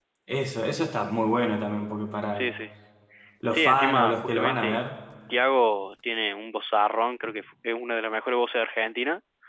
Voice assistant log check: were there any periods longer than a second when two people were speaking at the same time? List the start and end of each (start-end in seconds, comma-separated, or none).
3.5-4.8